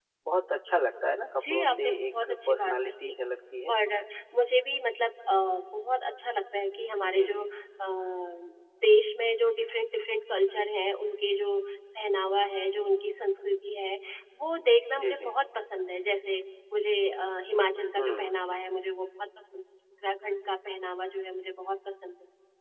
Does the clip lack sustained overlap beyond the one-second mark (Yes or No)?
No